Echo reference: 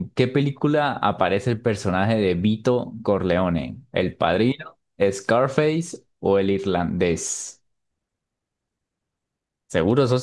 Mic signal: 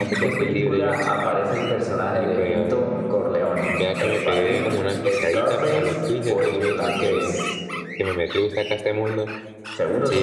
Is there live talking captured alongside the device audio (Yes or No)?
Yes